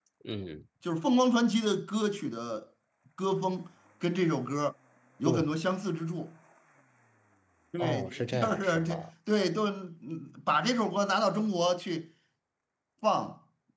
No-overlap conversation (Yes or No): No